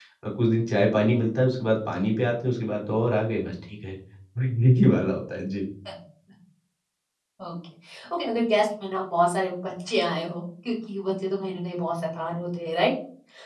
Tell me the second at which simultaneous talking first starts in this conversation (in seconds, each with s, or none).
none